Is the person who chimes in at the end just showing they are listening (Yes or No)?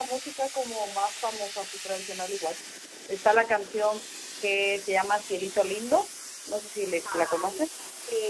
No